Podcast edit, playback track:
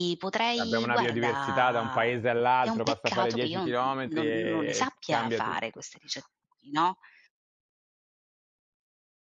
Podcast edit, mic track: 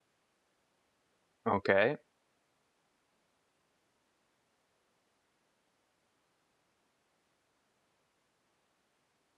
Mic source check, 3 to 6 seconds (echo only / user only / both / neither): neither